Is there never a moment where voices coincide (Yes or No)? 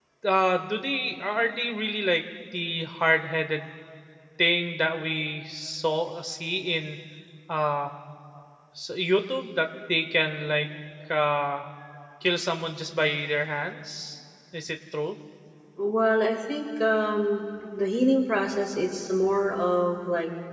Yes